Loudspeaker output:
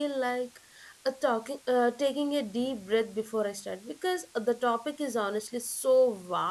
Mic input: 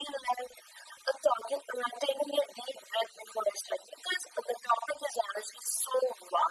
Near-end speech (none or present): none